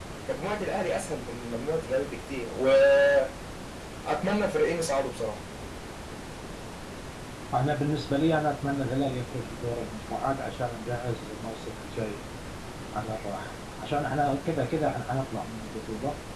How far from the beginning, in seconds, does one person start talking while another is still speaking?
none

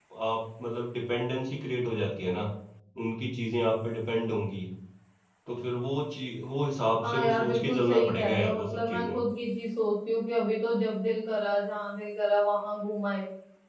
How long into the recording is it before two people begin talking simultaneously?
7.0 s

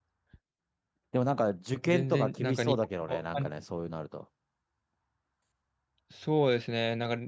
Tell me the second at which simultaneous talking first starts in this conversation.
1.9 s

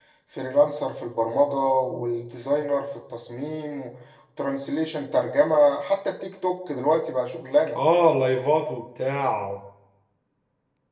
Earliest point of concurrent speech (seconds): none

